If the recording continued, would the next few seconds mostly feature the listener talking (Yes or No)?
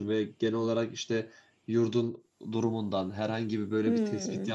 No